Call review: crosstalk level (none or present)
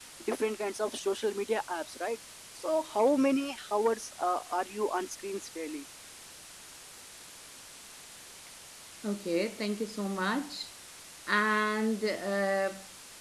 none